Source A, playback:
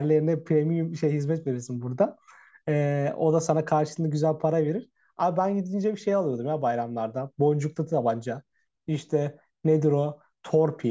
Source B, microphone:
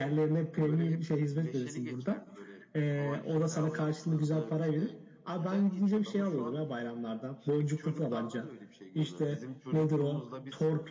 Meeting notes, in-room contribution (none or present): present